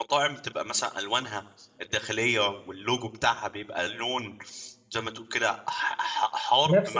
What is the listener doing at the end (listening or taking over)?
taking over